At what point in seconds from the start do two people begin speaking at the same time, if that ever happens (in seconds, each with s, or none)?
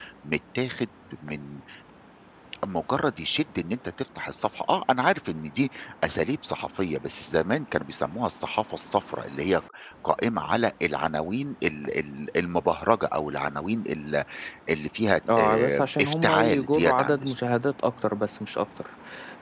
15.4 s